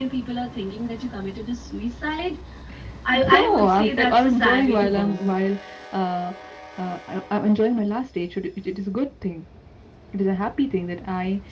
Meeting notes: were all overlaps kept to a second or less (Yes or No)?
No